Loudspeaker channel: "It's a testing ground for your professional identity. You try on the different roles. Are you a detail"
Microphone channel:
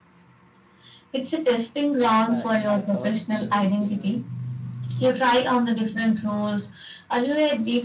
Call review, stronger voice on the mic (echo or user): echo